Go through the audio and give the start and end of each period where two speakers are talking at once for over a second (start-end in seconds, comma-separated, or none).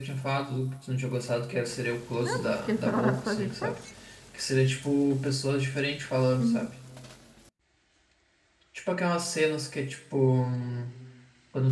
2.2-3.7